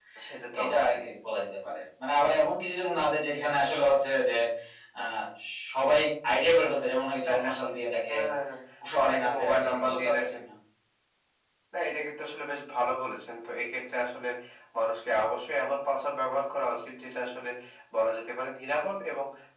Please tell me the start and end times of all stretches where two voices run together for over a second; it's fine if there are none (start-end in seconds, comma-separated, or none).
8.9-10.4